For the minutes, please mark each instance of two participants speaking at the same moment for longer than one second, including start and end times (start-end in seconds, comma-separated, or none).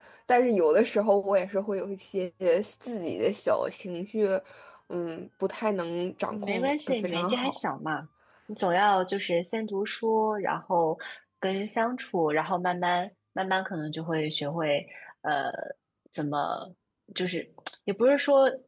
6.3-7.6